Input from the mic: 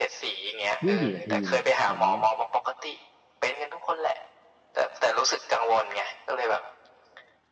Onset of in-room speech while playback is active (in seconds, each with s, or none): 0.8 s